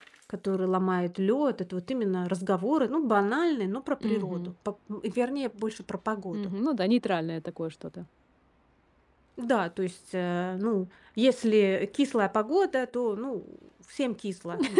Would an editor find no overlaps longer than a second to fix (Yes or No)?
Yes